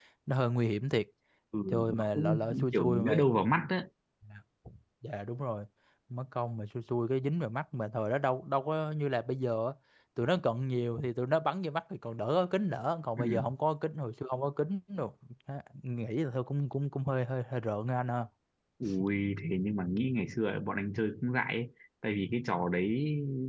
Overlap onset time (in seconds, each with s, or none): 1.7 s